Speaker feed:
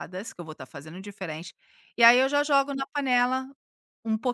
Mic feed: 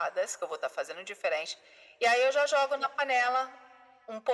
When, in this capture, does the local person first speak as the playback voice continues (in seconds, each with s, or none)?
none